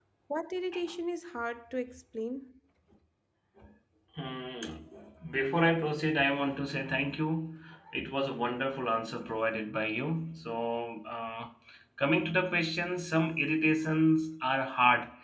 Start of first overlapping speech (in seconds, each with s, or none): none